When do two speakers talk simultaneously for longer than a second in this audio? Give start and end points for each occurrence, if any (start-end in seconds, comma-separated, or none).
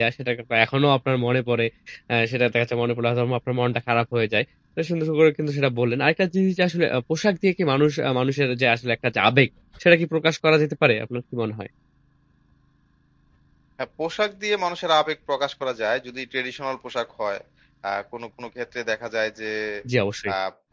none